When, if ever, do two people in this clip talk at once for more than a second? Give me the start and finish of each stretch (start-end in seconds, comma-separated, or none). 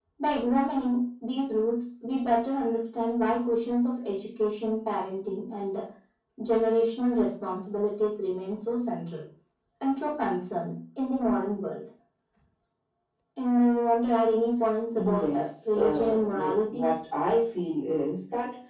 15.0-16.8